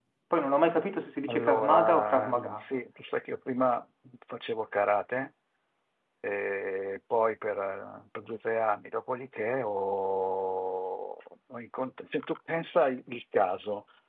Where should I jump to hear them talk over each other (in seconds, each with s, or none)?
1.3 s